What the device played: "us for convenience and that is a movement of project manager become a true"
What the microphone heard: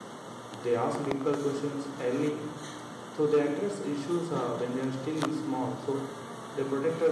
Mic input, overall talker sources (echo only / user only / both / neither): user only